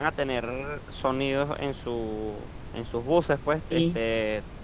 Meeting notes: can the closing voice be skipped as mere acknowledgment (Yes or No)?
Yes